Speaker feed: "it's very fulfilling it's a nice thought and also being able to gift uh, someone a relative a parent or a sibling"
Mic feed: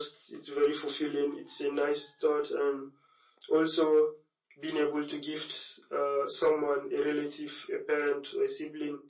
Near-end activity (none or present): none